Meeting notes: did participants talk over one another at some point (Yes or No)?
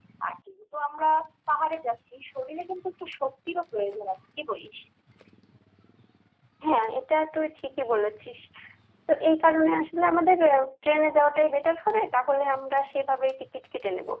No